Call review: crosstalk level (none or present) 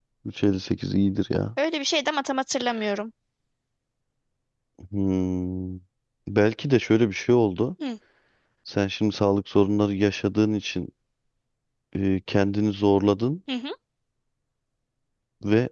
none